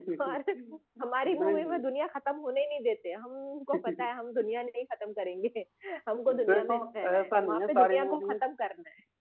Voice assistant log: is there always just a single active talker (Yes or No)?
No